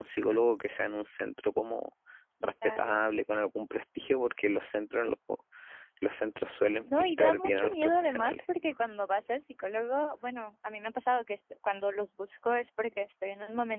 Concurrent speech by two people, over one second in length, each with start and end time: 7.0-8.3

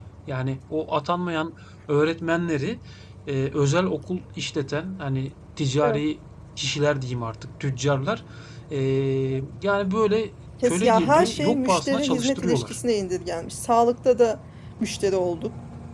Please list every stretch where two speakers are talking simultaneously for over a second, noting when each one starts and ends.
10.6-12.8

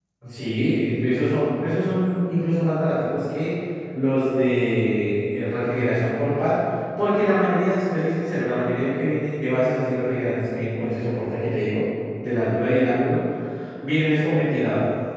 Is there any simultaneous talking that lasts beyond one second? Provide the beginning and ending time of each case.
none

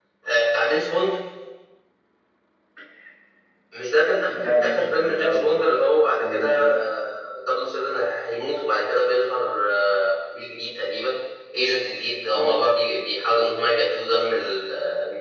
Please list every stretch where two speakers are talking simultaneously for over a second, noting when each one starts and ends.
4.3-5.6

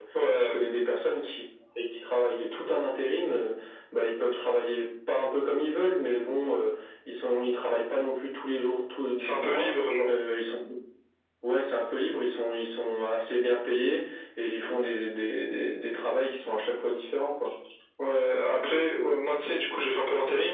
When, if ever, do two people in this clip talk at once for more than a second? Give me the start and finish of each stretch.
none

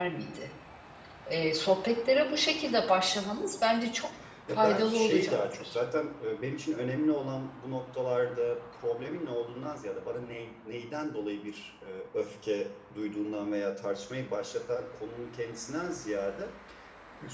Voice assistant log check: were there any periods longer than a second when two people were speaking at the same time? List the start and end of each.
4.5-5.8

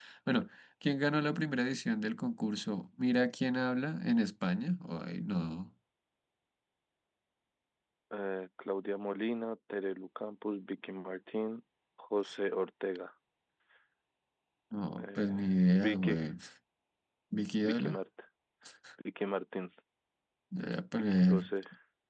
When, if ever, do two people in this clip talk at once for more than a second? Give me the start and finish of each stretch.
15.0-16.2

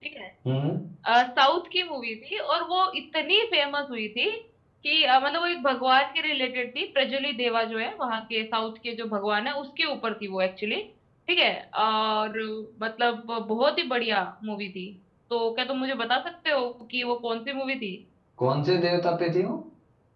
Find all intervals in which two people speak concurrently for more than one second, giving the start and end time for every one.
none

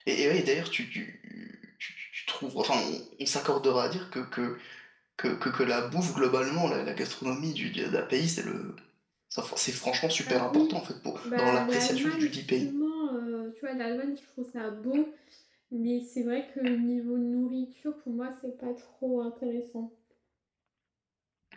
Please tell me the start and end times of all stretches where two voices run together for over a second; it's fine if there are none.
11.2-12.7

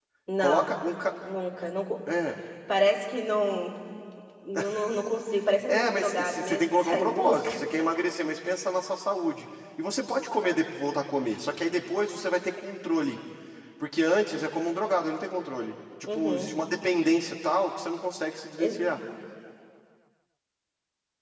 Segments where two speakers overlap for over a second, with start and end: 5.7-7.5

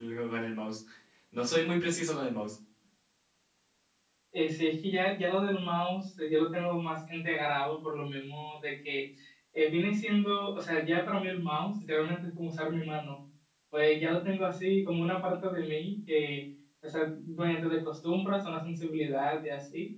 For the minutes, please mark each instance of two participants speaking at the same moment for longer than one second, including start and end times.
none

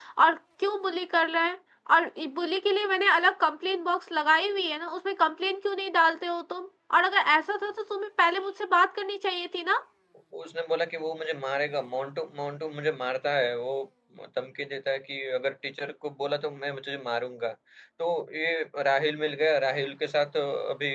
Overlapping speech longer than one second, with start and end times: none

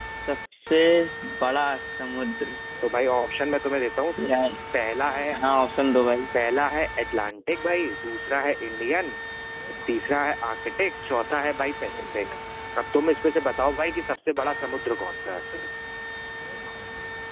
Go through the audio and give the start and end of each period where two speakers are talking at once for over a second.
none

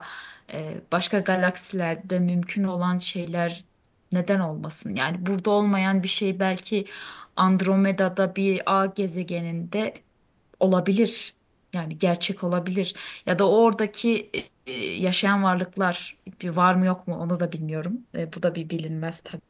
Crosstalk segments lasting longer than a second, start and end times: none

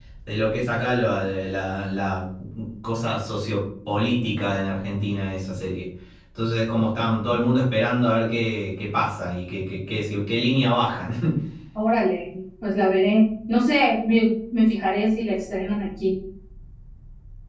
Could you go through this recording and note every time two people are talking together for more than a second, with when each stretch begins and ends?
none

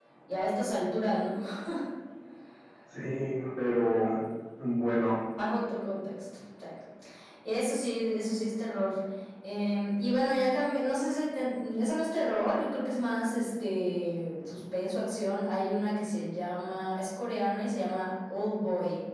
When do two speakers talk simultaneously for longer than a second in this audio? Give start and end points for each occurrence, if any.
none

